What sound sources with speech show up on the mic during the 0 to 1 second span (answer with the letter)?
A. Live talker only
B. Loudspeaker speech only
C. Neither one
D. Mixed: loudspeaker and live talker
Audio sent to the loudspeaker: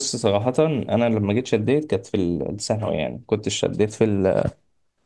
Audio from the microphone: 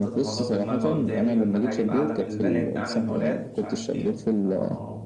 D